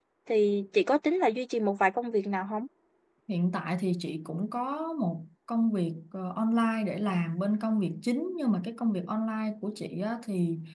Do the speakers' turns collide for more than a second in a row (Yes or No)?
No